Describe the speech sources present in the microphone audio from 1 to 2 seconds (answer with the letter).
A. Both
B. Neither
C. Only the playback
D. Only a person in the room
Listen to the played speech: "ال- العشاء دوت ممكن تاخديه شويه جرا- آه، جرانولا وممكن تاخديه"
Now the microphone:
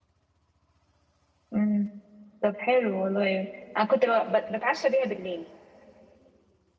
D